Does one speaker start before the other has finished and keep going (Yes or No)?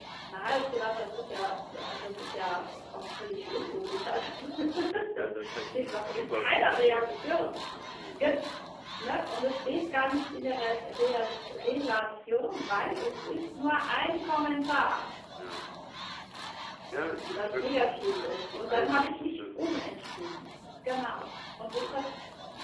Yes